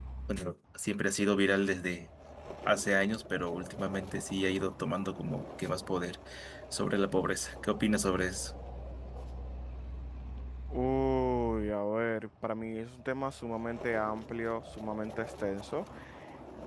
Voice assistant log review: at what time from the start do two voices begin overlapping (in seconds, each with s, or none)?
none